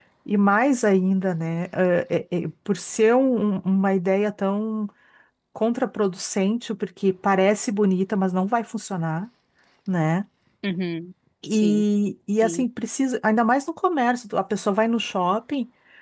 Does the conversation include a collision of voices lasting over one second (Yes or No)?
No